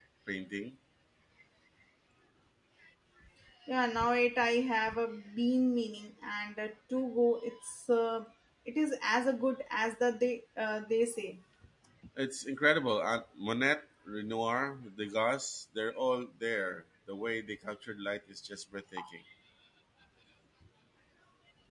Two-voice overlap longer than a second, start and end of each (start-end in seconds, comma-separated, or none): none